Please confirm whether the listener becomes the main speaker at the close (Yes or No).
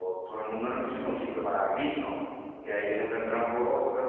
No